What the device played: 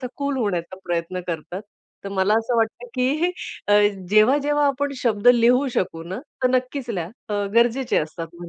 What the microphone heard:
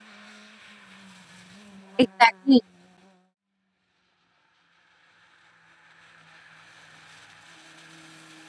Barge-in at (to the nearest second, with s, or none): 2 s